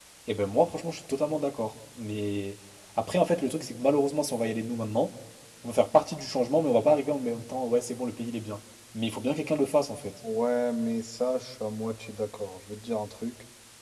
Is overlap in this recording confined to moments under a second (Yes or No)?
Yes